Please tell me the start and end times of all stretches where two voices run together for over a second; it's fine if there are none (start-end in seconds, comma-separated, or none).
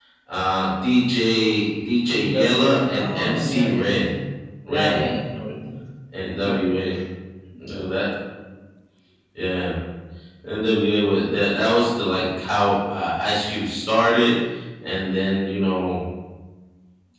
2.3-3.9